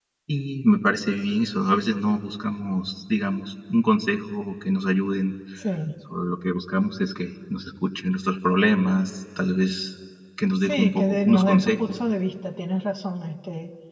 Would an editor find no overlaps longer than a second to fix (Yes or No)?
No